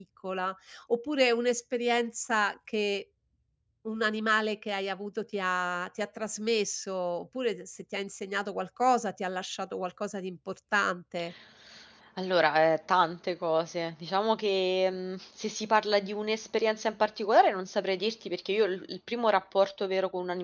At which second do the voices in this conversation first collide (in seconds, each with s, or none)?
none